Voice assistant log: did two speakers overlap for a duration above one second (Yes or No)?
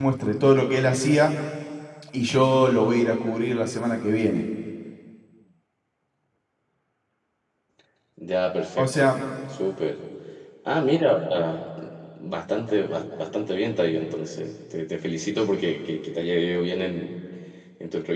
No